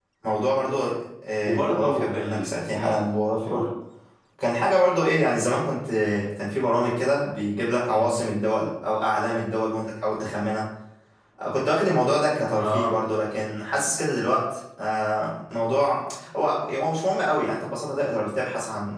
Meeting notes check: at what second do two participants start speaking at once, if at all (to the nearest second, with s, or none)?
1 s